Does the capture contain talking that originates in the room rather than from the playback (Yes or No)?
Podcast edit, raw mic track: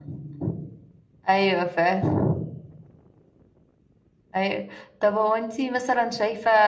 No